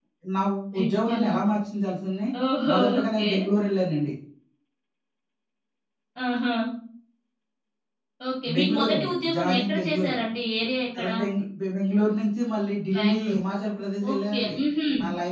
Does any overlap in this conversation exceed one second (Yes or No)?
Yes